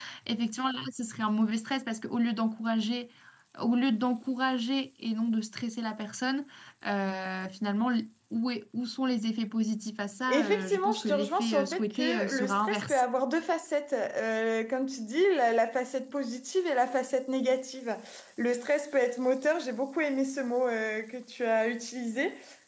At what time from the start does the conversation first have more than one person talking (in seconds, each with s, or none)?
10.3 s